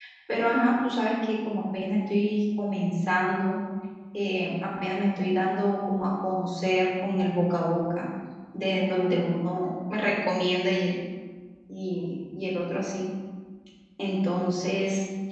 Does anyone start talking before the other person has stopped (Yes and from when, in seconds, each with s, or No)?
No